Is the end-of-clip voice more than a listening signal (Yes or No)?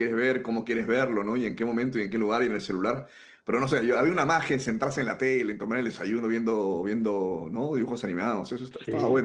Yes